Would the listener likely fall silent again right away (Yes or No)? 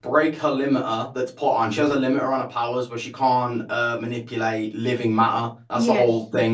Yes